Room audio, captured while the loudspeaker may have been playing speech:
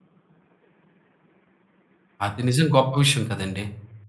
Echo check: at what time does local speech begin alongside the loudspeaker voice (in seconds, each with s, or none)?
2.2 s